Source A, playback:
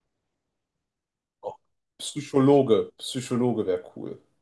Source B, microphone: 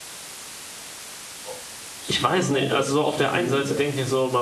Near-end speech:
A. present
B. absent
A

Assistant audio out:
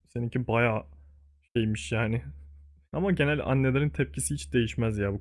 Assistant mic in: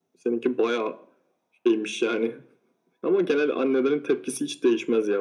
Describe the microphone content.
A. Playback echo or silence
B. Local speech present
A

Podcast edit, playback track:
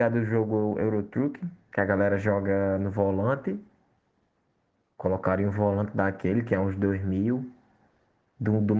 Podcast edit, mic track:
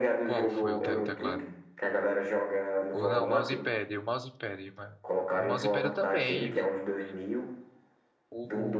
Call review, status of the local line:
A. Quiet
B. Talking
B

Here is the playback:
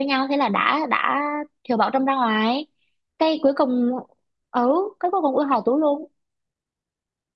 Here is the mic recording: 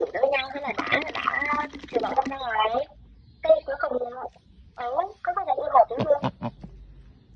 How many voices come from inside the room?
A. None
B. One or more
A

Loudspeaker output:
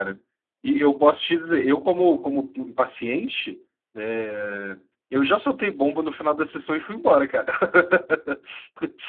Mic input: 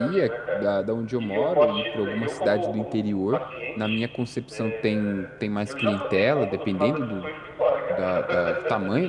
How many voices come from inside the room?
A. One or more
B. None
A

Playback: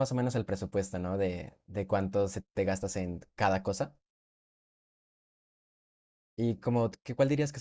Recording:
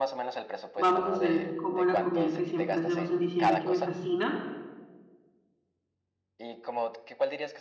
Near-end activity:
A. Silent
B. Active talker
B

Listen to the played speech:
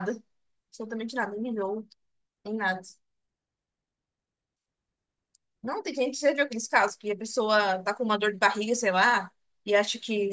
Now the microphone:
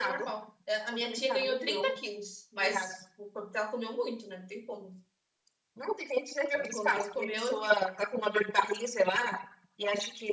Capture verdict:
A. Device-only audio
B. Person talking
B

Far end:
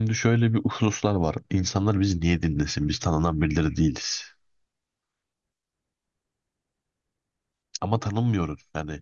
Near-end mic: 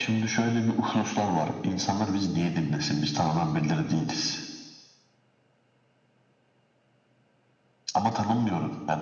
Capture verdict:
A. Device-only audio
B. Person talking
A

